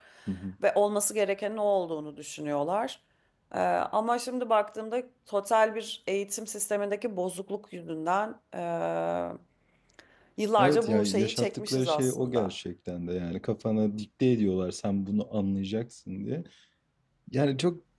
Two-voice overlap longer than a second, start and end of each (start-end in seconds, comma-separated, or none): 10.6-12.5